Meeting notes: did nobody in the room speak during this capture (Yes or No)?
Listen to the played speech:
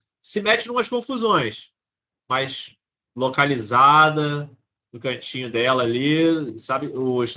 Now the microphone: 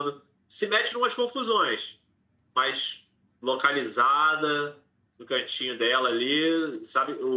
Yes